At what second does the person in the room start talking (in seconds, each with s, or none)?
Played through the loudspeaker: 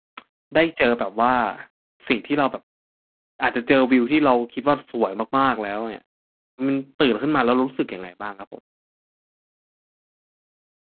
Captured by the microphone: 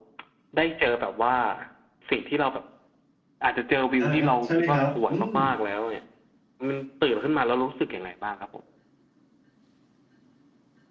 4.0 s